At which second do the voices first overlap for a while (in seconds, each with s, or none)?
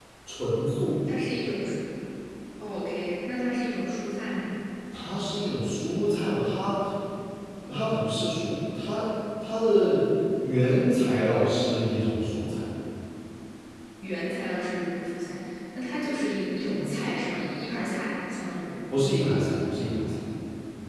none